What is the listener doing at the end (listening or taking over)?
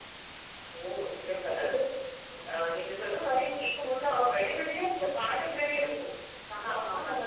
listening